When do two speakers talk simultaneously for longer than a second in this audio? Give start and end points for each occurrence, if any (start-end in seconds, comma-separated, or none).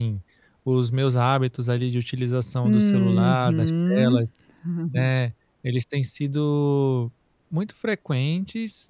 2.6-4.2